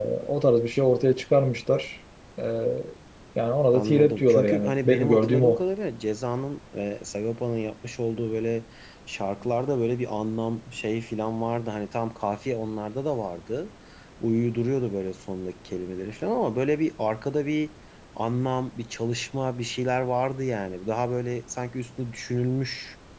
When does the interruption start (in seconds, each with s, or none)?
3.7 s